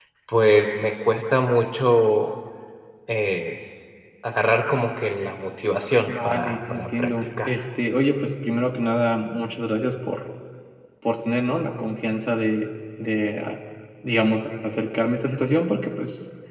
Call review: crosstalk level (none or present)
present